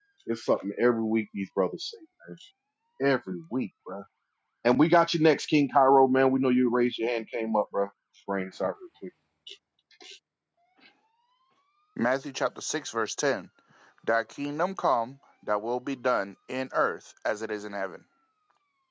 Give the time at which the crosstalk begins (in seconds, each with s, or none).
none